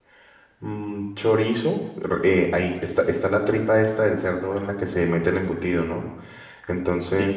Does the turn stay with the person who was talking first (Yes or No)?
Yes